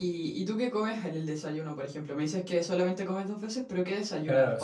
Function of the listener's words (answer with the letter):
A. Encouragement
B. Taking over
B